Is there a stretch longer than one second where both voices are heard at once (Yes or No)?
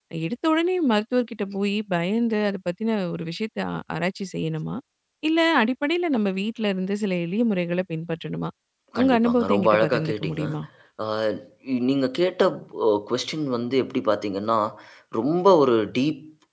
Yes